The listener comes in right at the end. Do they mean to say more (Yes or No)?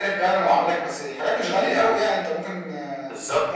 Yes